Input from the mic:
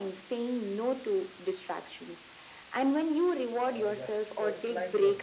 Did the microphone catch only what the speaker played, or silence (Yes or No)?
No